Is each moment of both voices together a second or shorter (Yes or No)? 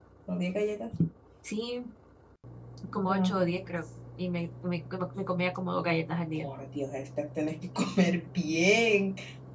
Yes